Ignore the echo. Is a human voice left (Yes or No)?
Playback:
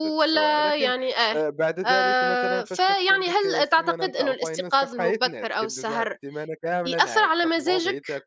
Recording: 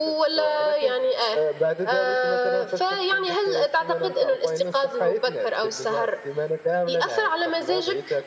No